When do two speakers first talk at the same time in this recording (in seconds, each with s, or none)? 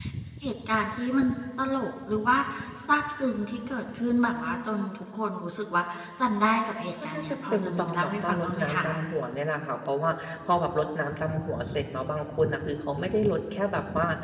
7.0 s